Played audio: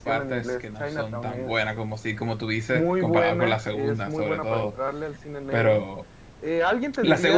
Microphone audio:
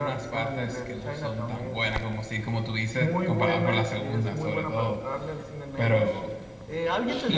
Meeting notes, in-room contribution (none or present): none